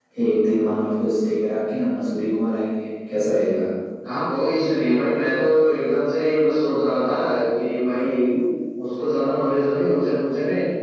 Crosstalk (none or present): none